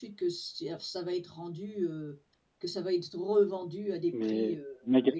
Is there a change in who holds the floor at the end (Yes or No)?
Yes